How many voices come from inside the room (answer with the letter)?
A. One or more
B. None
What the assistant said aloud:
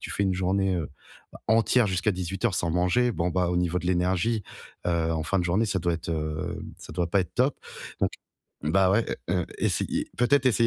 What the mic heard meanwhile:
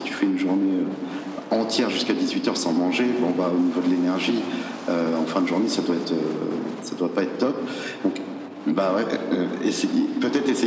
B